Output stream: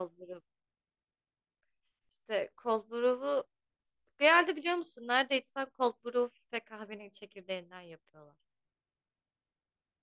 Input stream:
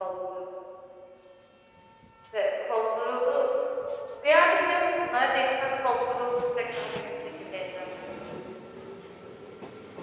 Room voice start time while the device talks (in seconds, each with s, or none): none